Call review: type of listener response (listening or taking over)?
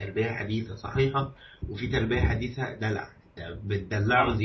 listening